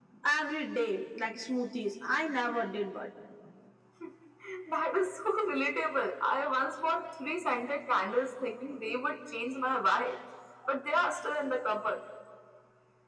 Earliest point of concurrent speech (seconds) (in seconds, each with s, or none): none